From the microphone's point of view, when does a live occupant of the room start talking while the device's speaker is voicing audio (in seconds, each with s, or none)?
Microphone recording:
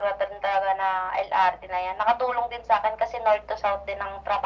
none